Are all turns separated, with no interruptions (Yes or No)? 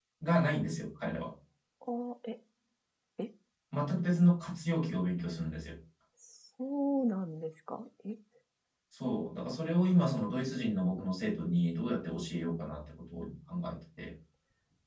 Yes